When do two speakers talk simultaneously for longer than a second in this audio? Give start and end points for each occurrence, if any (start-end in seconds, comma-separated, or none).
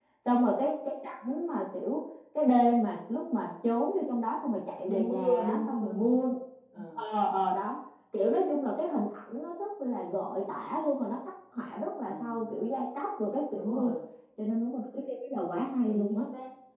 4.9-6.2